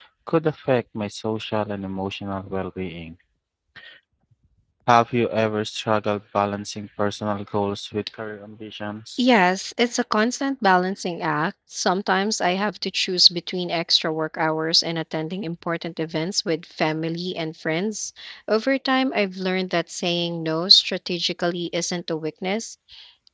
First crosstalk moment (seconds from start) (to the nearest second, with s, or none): none